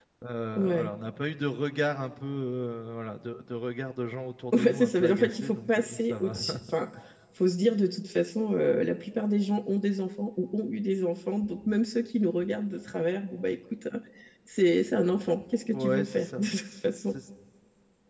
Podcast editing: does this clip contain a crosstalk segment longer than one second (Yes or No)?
Yes